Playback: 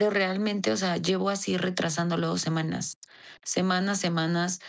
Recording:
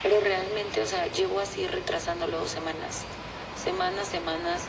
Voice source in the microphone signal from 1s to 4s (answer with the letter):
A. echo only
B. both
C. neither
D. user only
A